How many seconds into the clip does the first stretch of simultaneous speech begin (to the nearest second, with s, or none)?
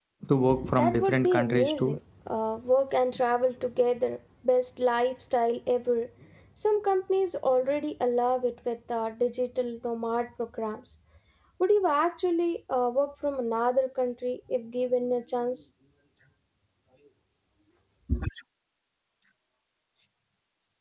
1 s